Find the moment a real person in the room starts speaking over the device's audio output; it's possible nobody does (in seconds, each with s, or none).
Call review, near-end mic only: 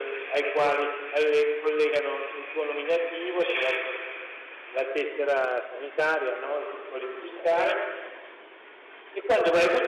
none